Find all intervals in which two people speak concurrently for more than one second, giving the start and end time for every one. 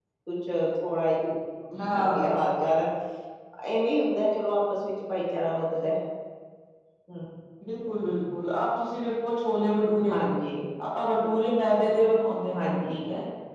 none

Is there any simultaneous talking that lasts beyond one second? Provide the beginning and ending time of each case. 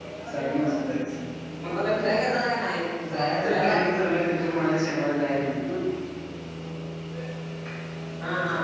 none

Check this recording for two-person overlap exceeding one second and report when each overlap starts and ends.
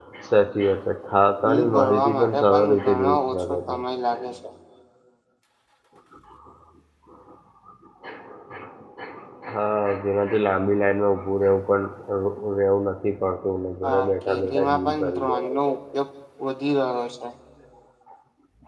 1.5-3.8, 13.8-15.8

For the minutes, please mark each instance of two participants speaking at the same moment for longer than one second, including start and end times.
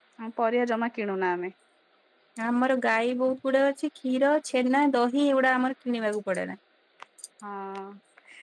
none

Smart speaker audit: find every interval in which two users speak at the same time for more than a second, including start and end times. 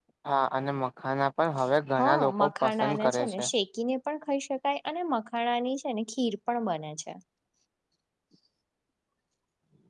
2.0-3.4

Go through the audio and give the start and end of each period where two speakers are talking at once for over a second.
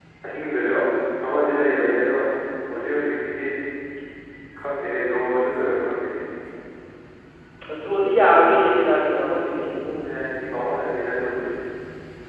none

